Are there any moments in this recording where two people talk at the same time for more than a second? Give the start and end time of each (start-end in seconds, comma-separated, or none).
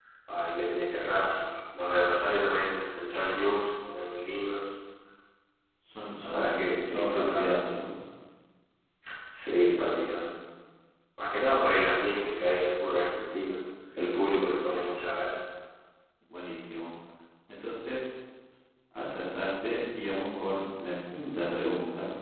6.2-7.5